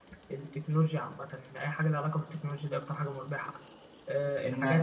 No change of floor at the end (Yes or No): No